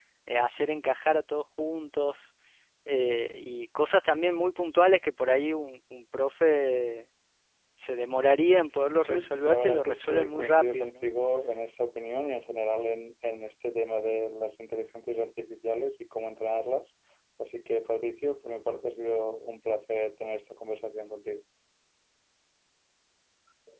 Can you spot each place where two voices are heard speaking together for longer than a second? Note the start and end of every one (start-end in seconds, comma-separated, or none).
9.0-10.9